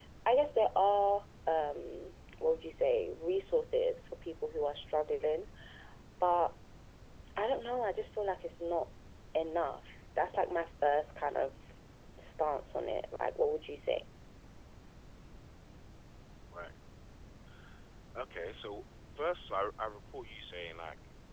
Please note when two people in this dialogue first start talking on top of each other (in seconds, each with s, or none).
none